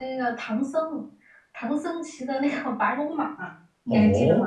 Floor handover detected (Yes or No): Yes